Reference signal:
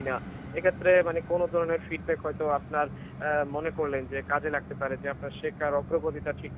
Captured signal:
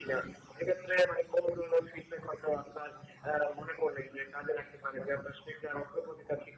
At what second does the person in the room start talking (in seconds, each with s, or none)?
none